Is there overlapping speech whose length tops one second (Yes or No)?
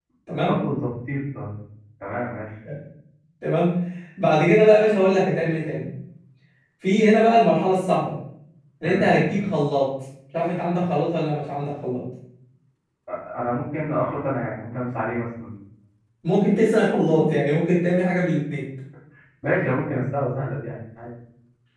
No